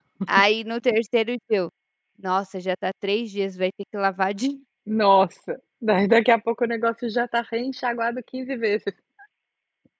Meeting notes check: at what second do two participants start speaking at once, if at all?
none

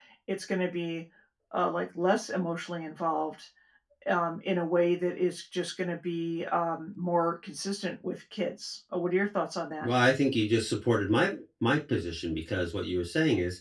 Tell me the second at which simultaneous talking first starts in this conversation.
none

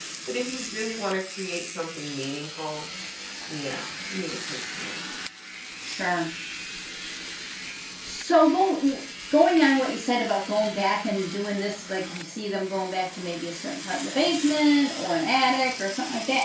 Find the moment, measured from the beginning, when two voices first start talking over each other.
none

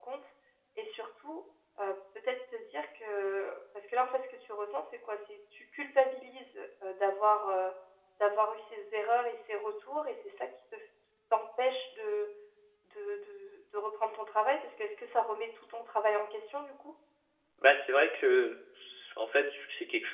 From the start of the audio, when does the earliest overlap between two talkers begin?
none

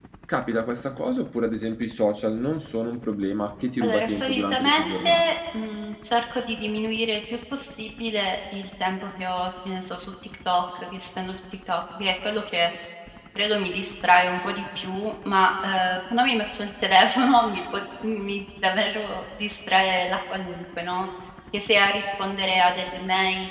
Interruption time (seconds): 3.8 s

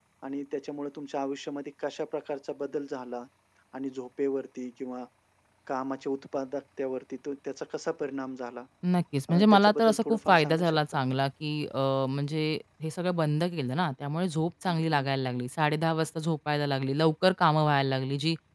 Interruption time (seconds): 9.3 s

